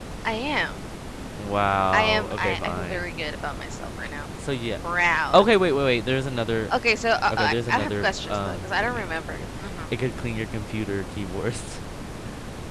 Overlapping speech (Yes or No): Yes